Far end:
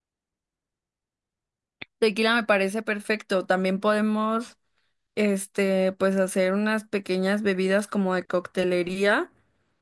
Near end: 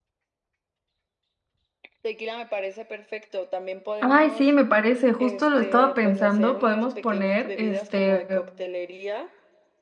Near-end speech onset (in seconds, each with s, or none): 4.0 s